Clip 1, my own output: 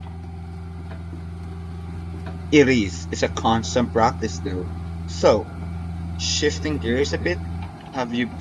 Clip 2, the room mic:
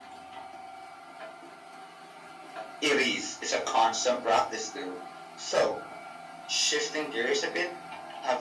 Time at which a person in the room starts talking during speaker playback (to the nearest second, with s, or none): none